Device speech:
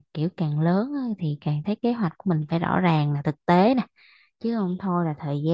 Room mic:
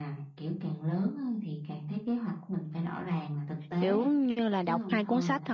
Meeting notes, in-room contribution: present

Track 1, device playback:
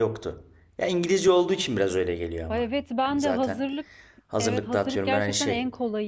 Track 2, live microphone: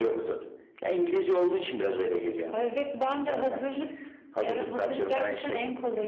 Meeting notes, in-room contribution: none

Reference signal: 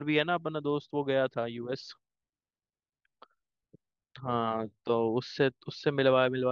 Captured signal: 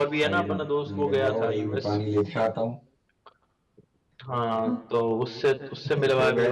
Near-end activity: present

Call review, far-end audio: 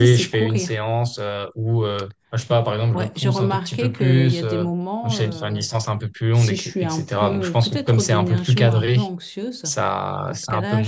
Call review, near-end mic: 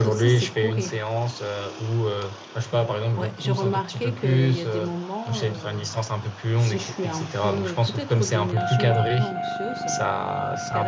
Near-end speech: none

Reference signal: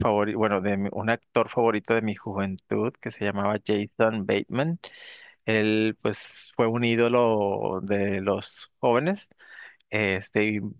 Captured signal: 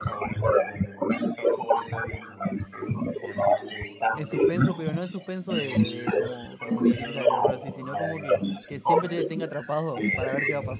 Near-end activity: present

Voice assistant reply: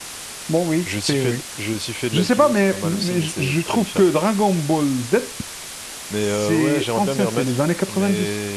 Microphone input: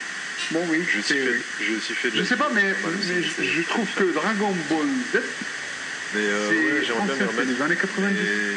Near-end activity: none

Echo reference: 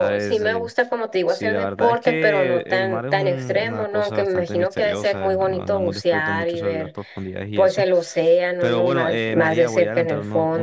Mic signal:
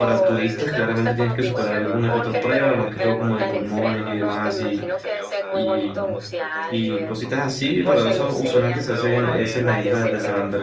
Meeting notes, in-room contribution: present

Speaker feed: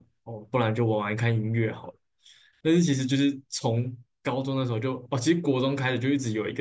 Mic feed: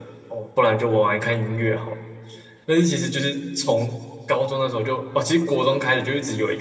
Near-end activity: none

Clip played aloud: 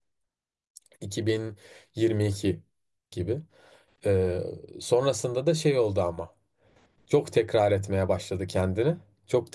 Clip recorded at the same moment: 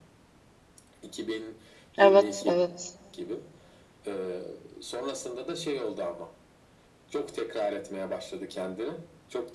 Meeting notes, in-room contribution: present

